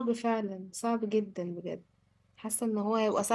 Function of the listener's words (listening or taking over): listening